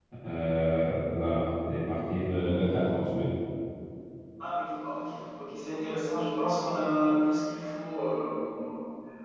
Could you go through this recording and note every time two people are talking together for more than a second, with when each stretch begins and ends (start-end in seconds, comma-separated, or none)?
none